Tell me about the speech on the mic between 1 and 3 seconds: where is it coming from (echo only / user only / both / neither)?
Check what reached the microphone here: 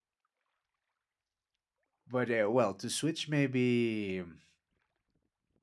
user only